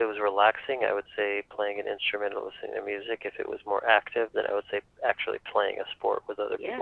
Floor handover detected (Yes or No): Yes